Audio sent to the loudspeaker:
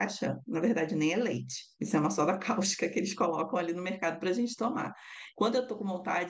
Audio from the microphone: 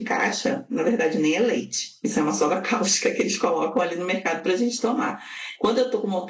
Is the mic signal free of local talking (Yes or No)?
Yes